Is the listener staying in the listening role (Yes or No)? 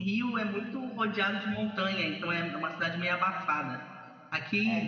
Yes